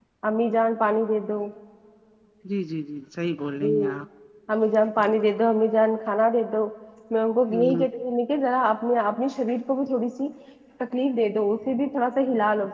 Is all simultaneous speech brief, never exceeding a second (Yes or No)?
Yes